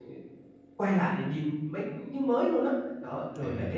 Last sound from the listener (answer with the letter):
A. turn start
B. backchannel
B